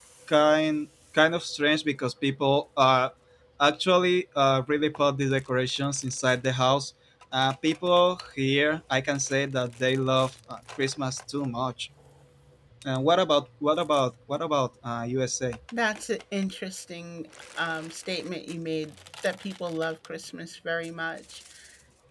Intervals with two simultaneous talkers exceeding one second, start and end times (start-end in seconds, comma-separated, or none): none